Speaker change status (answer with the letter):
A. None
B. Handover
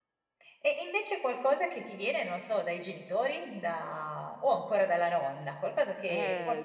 B